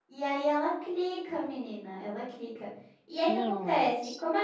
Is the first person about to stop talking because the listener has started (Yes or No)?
No